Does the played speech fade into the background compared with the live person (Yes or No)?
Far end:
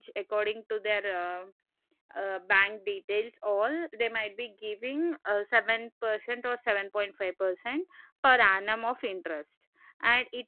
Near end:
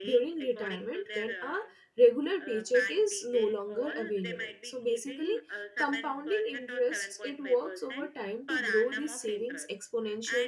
Yes